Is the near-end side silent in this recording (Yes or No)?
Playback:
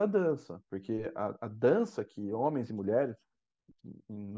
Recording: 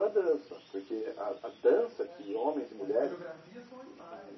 No